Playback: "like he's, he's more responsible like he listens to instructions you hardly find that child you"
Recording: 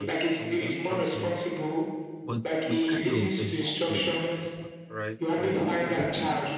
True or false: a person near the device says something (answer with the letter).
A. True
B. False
A